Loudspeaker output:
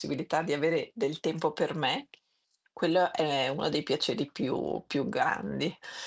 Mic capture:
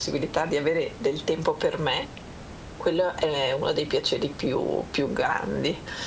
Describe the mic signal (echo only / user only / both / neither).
echo only